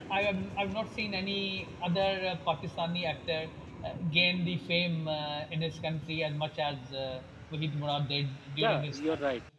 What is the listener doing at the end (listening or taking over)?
taking over